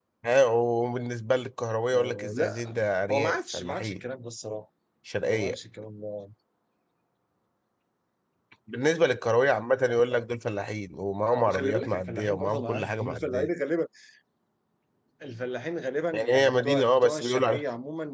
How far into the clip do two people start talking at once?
2 s

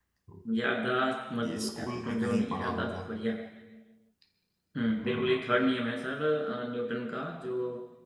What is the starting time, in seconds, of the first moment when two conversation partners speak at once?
1 s

